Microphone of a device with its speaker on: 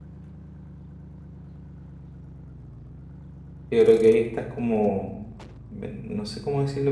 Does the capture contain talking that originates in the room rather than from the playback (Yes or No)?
Yes